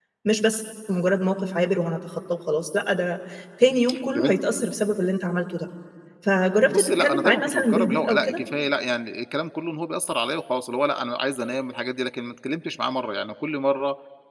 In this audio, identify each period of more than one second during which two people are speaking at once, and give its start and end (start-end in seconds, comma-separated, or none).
6.7-8.4